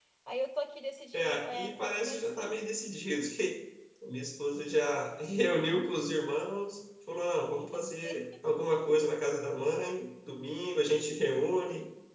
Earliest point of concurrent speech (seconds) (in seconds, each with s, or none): 1.1 s